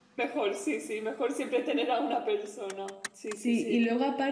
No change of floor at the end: No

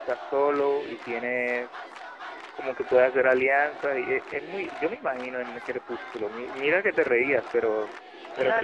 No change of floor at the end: No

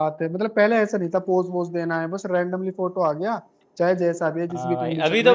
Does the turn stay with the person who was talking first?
No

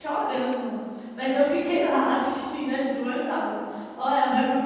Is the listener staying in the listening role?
No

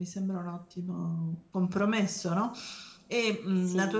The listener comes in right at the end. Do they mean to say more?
No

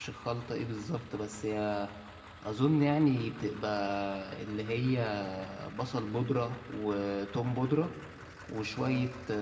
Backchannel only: Yes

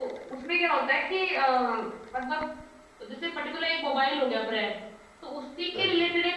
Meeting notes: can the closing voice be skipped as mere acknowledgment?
Yes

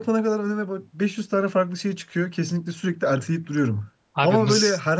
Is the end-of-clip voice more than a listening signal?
No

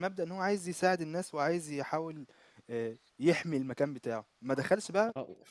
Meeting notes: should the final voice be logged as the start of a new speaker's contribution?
No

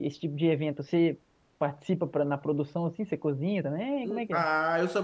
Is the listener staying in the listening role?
No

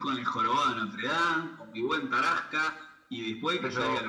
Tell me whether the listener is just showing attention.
Yes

